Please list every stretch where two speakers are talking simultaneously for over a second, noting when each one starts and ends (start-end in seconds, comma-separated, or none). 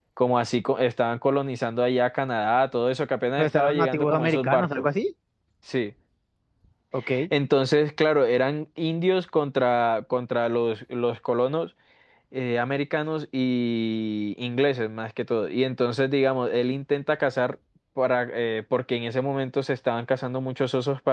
3.4-4.8